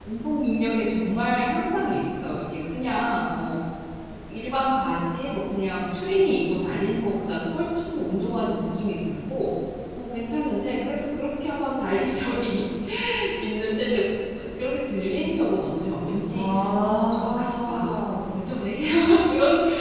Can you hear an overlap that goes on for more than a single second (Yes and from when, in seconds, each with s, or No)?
Yes, from 16.3 s